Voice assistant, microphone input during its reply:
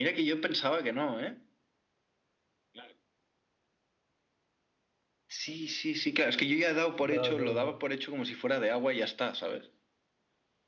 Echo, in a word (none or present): present